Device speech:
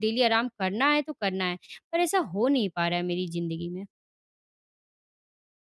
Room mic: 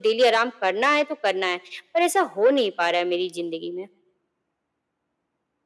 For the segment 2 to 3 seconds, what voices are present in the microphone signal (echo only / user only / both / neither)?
echo only